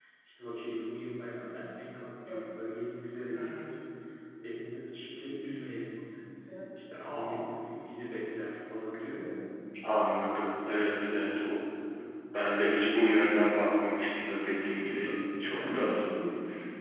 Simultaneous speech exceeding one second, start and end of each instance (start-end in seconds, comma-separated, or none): 14.7-15.9